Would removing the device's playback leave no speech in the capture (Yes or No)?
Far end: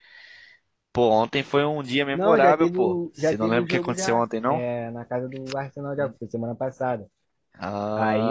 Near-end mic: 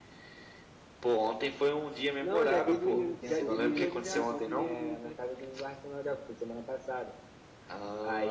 No